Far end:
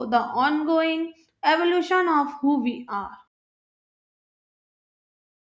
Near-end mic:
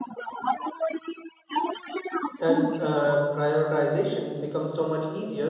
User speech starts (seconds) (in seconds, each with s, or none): 2.4 s